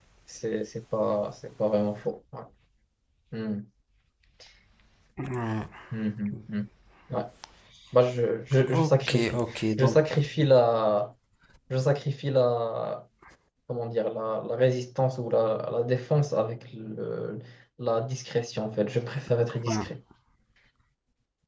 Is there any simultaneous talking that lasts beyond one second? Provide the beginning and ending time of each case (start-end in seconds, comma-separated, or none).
8.7-10.0